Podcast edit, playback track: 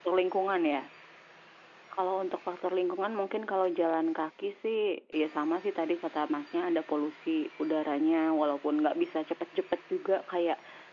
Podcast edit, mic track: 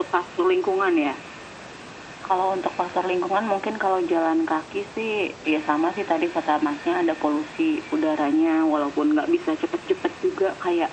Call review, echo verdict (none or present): present